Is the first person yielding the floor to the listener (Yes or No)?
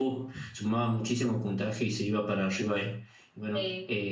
No